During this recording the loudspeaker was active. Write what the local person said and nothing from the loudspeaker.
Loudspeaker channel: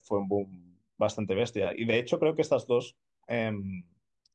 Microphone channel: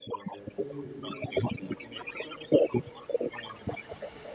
Sí,

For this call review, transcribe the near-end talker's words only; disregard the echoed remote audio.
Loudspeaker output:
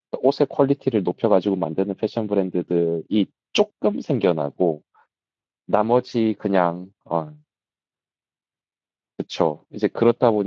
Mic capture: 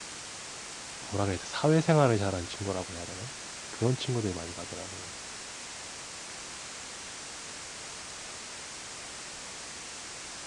뭐라 그래야 돼 사회생활을 잘하는 친구라고 해야 되나 그런 친구들이 많이 가더라고요.

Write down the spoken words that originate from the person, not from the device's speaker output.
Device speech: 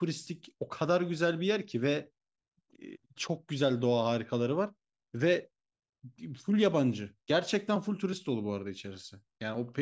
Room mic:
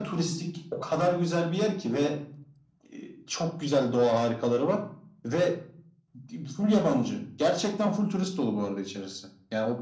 none

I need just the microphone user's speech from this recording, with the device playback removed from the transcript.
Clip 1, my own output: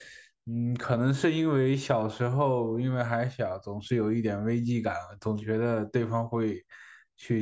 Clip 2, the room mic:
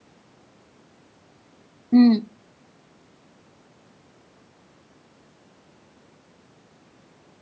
嗯

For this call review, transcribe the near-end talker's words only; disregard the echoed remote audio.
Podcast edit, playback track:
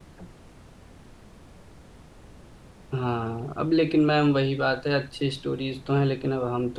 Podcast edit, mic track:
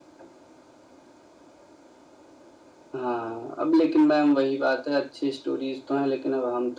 none

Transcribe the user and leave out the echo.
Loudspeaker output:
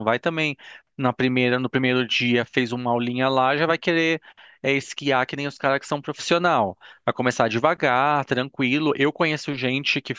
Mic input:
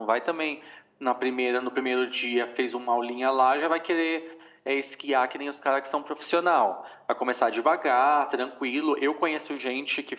none

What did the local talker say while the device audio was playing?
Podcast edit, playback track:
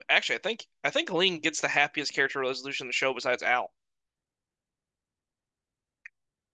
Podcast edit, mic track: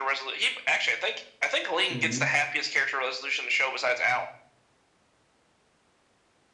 hmm

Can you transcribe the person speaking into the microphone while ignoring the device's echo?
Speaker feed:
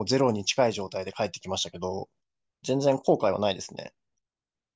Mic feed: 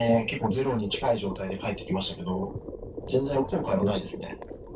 none

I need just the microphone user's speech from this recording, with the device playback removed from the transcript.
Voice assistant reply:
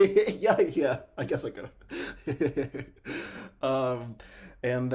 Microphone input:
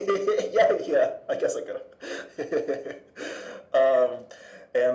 none

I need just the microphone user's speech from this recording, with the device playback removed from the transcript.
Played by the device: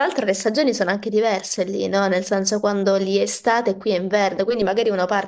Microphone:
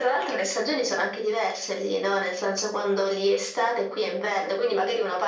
none

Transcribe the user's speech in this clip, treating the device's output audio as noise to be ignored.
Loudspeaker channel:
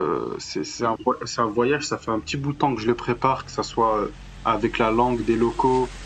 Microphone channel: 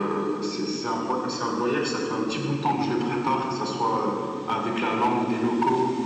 none

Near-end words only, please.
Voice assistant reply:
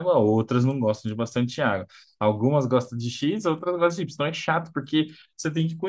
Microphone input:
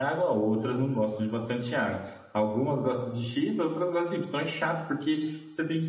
none

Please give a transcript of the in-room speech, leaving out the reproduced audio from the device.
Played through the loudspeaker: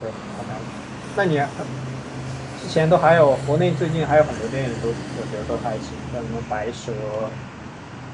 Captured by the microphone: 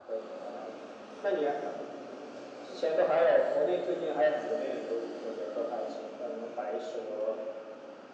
none

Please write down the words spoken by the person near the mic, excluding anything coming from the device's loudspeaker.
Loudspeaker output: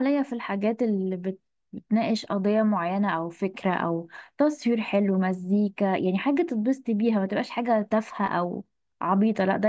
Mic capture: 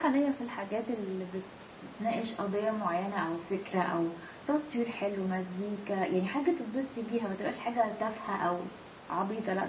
none

